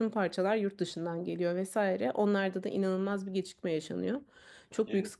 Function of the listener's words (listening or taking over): listening